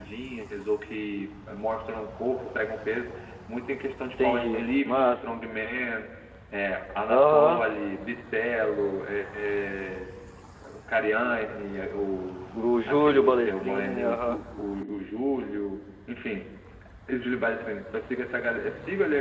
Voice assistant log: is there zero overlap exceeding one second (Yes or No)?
No